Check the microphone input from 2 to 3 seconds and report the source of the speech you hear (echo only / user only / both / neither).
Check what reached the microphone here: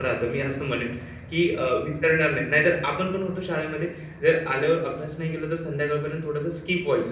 user only